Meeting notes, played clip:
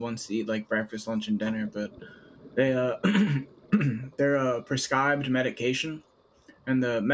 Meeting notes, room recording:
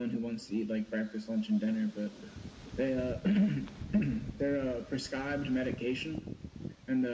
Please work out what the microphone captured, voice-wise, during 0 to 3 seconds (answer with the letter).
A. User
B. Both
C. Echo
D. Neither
C